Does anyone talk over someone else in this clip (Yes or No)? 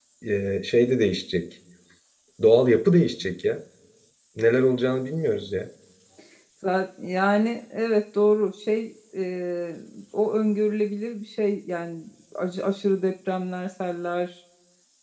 No